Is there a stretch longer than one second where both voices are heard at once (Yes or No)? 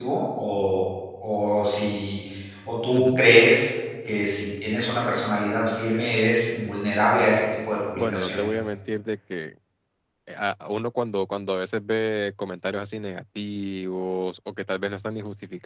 No